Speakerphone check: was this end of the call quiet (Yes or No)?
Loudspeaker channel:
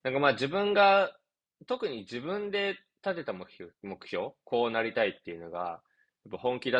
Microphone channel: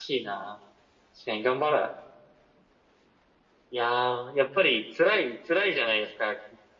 No